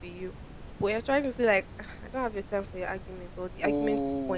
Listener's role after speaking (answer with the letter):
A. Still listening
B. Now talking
B